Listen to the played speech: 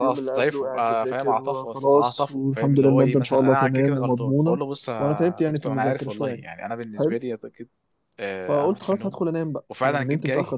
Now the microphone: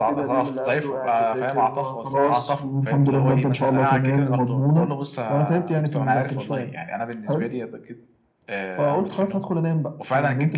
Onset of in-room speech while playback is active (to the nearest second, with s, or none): none